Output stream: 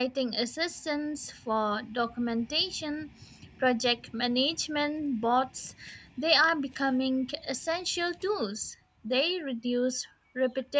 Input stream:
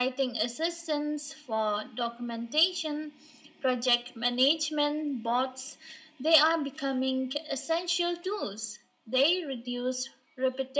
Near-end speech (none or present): none